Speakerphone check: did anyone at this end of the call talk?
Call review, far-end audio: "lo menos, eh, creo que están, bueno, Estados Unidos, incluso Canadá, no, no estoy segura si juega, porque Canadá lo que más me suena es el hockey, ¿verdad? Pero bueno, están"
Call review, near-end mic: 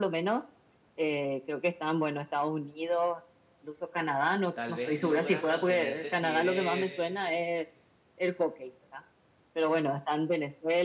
Yes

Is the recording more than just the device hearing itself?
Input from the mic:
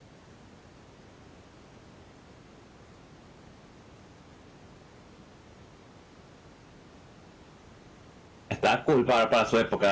Yes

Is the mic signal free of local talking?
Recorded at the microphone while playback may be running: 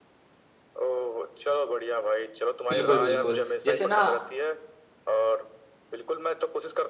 No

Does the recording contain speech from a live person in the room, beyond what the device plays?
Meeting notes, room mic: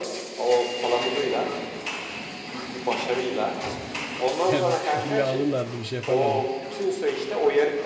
Yes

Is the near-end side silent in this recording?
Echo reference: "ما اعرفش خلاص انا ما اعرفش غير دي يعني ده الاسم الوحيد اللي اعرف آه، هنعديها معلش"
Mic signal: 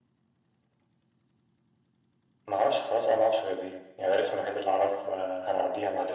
Yes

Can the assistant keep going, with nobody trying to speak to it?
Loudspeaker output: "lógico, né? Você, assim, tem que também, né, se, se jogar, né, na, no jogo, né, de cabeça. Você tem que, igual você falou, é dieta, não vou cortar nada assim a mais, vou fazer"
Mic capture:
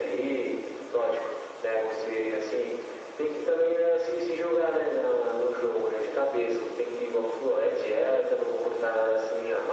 Yes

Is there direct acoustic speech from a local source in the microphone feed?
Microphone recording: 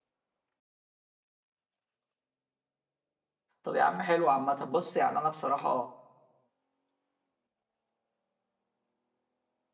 Yes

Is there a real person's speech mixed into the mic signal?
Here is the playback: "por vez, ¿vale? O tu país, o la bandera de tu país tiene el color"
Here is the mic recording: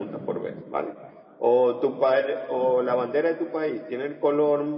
No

